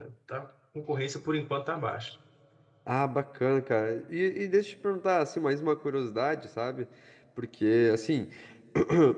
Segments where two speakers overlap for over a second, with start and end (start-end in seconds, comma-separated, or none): none